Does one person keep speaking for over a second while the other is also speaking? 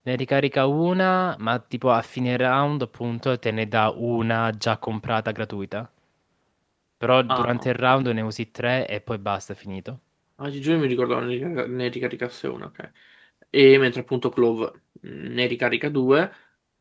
No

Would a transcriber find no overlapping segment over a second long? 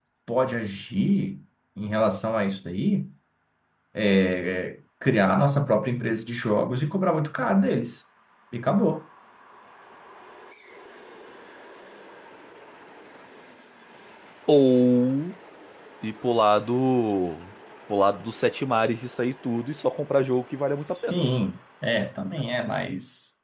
Yes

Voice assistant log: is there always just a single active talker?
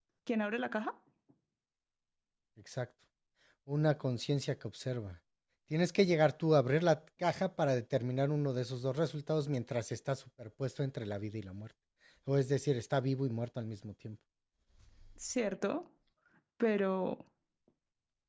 Yes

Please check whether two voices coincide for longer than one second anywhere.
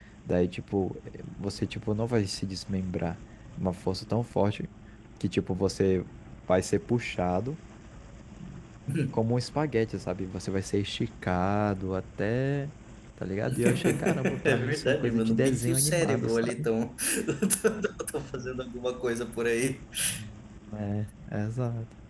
Yes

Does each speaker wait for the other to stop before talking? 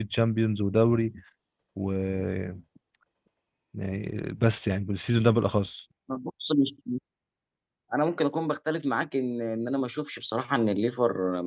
Yes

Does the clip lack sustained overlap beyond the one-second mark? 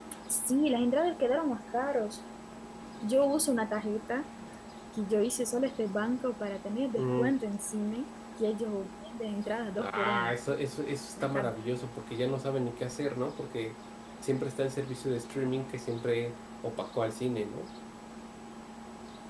Yes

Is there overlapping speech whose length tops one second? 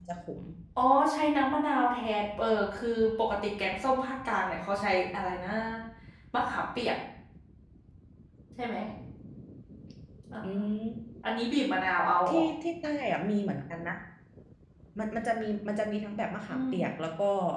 No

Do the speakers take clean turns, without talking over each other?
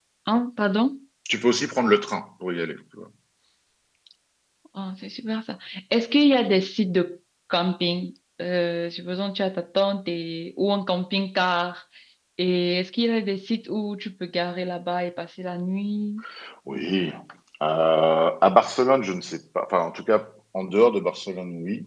Yes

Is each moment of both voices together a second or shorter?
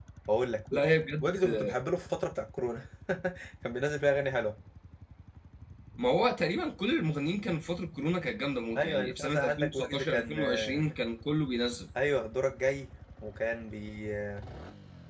No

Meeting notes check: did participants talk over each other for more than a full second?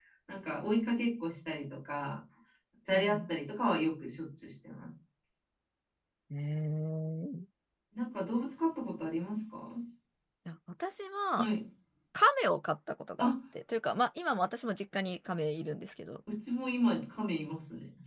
No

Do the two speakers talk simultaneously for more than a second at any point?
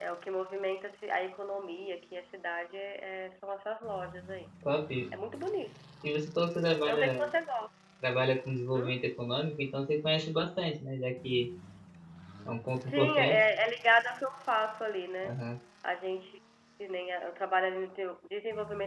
No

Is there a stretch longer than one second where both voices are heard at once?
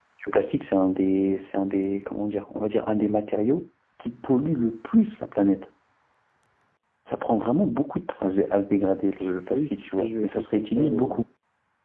Yes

